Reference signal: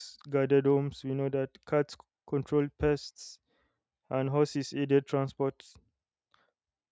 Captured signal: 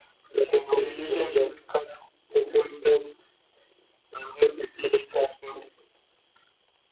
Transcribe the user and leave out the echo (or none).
It's a relationship